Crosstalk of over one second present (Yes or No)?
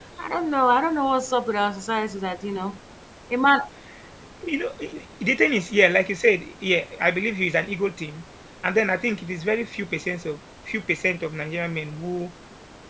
No